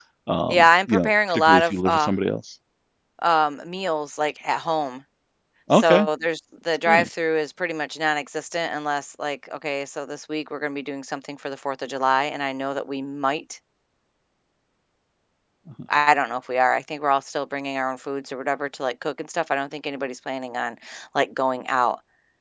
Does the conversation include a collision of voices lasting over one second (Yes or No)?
Yes